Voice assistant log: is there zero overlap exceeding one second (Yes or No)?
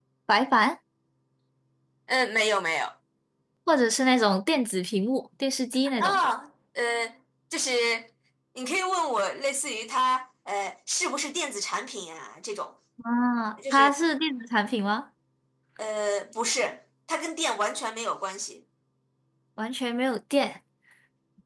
Yes